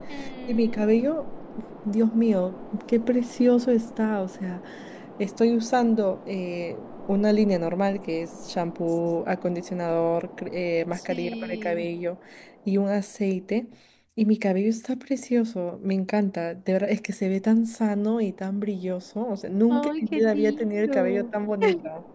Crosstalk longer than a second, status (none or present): present